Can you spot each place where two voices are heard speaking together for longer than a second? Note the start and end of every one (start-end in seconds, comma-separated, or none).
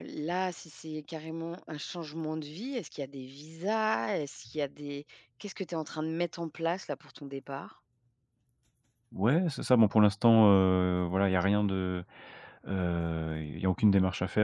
none